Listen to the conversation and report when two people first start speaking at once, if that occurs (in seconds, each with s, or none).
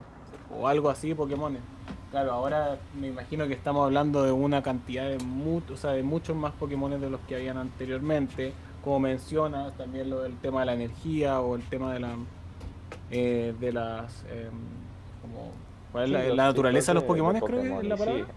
16.1 s